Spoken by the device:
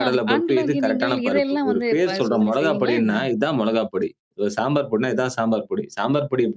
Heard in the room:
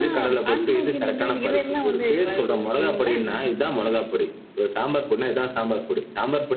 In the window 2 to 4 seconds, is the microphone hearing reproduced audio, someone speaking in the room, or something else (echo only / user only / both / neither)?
echo only